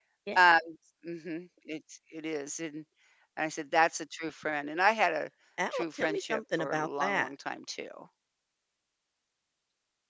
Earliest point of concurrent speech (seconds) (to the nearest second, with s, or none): 6 s